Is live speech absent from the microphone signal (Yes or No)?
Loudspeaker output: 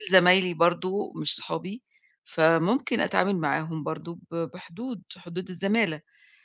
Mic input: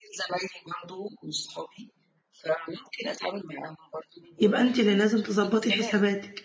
No